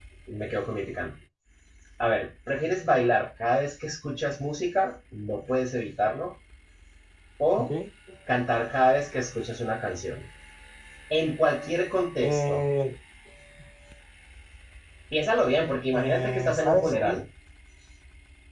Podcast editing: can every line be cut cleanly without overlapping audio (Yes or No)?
No